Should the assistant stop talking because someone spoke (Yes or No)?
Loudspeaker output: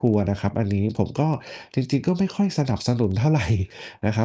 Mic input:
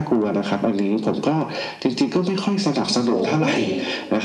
Yes